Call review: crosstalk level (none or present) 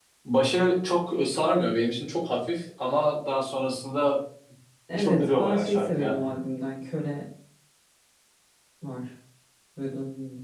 present